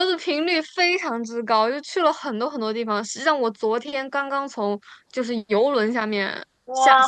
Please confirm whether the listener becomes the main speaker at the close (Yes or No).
Yes